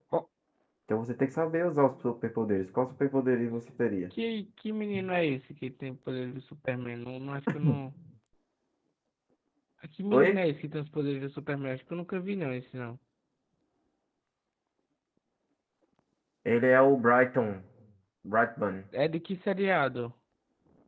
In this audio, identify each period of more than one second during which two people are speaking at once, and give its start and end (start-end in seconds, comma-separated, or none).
none